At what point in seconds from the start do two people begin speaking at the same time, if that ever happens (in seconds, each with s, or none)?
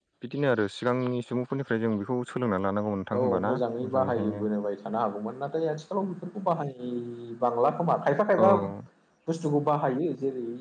3.2 s